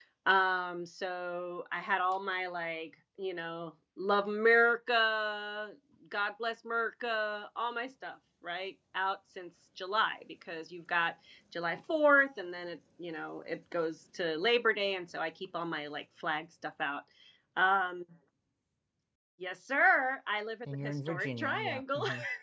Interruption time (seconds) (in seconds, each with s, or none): 20.6 s